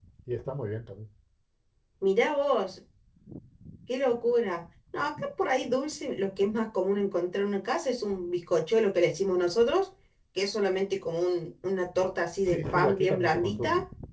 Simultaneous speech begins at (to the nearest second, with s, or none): 12 s